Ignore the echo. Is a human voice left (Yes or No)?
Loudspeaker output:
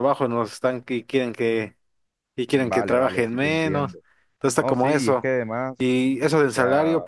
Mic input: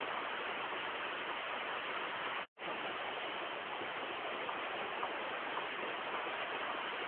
No